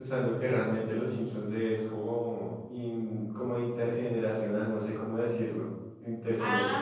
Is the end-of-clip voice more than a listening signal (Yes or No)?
Yes